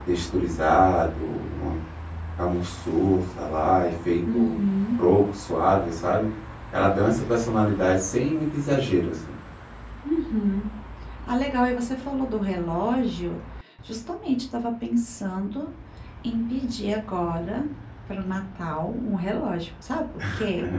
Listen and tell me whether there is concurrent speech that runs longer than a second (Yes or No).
No